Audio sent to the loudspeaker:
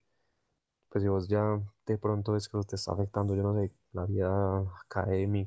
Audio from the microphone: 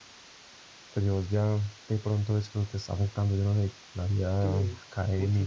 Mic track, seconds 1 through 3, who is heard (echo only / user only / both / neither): echo only